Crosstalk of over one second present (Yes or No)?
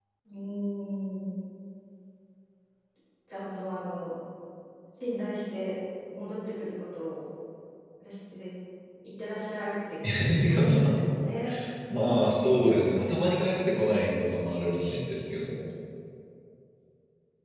No